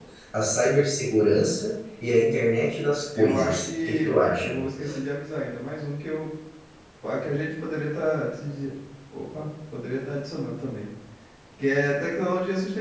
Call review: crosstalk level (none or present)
present